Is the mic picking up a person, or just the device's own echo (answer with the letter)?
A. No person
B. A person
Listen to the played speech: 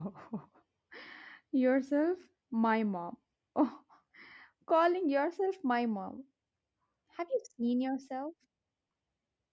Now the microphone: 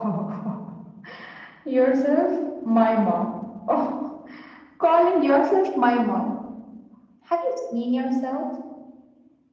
A